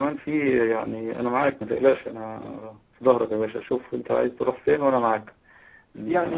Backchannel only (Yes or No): Yes